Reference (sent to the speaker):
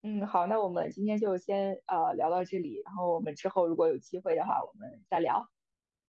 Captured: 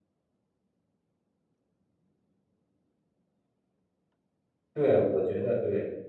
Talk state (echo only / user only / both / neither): user only